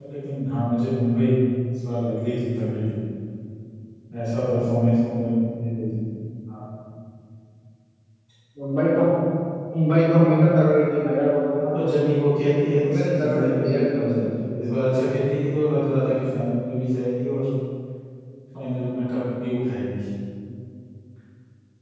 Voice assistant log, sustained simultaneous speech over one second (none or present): present